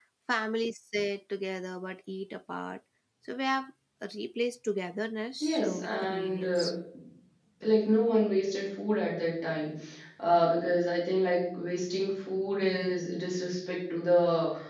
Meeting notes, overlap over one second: present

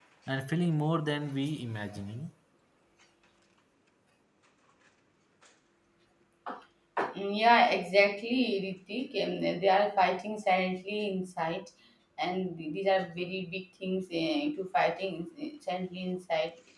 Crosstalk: none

